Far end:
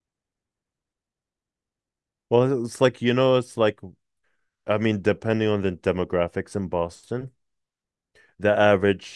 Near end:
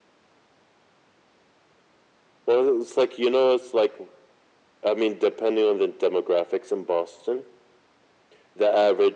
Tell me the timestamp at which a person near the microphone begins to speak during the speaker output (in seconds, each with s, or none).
none